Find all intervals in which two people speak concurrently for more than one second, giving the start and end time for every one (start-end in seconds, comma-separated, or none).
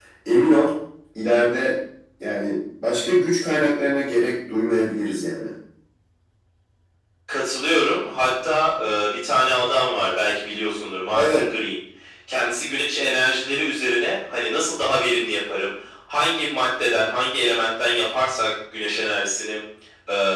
none